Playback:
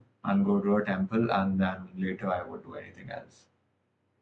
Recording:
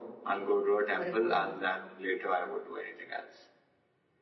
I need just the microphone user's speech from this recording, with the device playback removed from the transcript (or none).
what do you call that?